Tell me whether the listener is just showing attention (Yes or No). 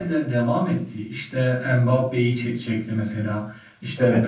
Yes